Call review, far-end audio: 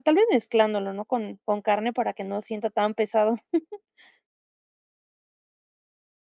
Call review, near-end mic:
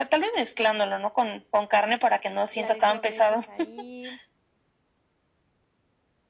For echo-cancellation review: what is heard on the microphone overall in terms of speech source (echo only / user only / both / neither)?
both